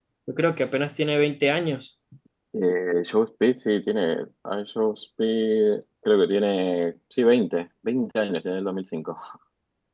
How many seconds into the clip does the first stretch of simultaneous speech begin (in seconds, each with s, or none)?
none